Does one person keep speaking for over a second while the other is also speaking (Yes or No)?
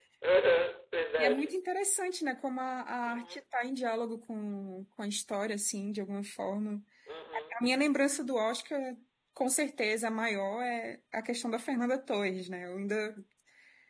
No